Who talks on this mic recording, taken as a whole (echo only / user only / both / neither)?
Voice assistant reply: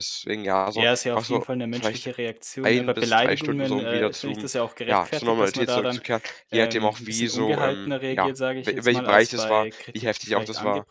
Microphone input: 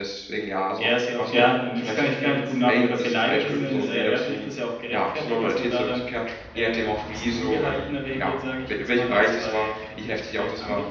both